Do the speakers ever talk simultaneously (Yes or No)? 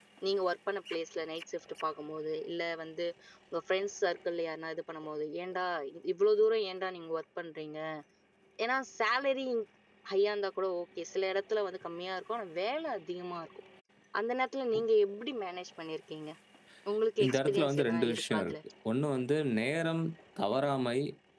Yes